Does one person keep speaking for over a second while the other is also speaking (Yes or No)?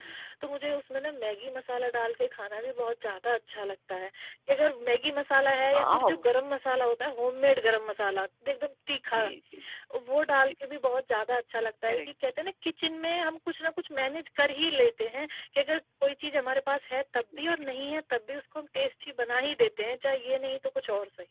No